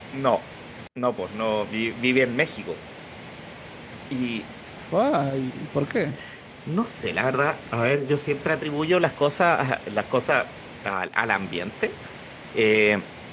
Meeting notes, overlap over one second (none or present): none